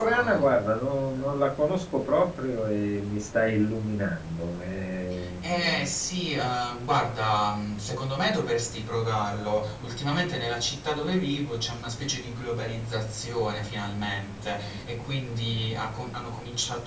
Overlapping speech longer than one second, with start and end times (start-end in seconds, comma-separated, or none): none